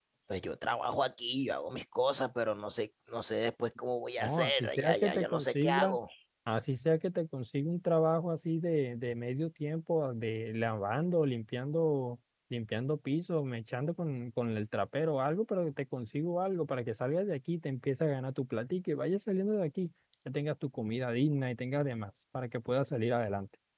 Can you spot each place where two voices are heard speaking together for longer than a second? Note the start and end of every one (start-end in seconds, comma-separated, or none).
4.2-6.0